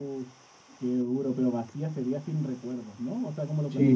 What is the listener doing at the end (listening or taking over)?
taking over